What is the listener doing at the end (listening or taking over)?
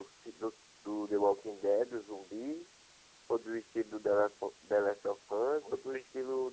listening